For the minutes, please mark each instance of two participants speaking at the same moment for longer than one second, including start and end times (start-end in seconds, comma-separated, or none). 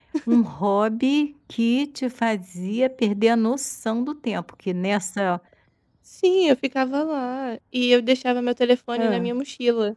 none